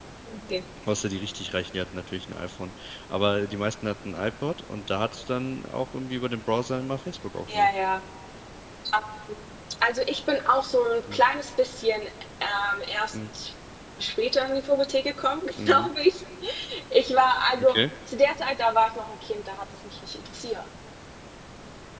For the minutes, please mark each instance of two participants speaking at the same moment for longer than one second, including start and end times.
none

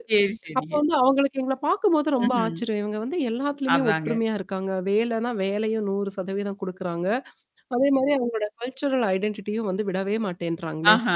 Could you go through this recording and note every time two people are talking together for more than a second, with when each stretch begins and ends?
none

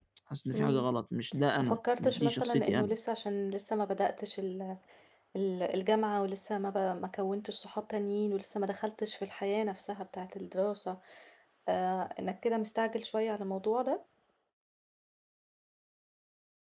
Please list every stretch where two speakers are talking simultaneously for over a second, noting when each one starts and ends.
1.6-2.9

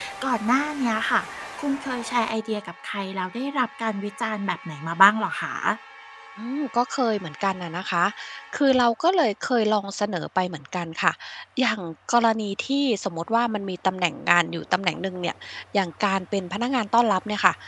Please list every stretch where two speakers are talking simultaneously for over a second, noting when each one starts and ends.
none

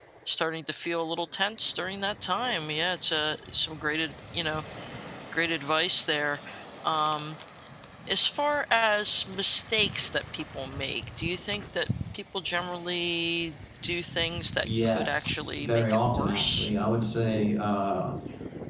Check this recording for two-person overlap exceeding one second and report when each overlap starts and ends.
14.6-16.7

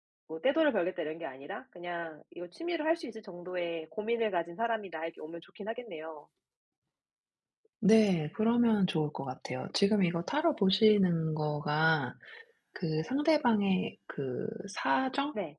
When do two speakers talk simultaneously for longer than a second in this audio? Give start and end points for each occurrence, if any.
none

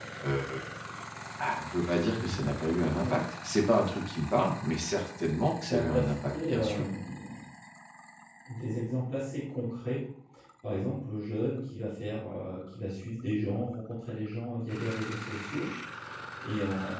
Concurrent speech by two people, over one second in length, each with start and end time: 5.7-6.9

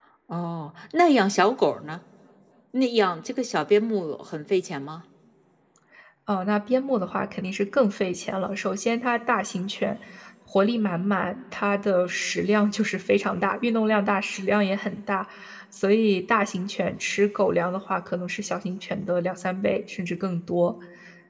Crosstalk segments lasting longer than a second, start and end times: none

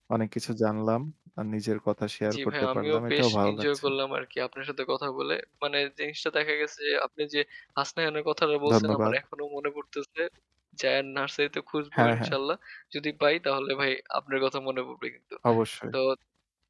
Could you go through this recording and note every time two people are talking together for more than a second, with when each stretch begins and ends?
2.3-3.8

